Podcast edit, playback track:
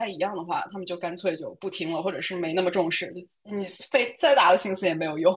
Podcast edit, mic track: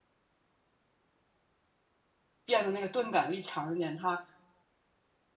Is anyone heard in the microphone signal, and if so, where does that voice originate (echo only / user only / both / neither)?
user only